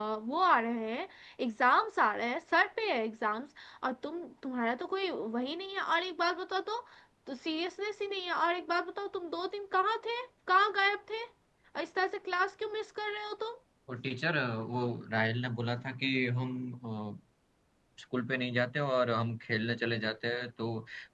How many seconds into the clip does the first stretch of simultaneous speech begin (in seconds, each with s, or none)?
none